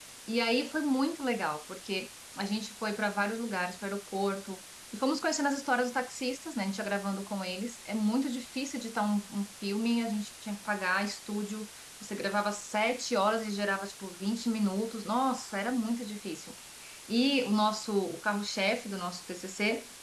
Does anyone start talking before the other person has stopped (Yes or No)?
No